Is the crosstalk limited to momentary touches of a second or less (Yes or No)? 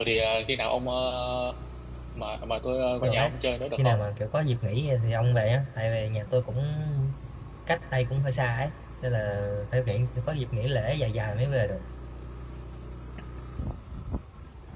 Yes